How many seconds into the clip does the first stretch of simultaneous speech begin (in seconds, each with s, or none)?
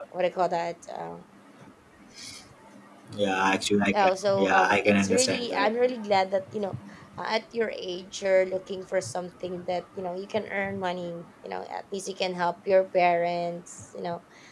4.0 s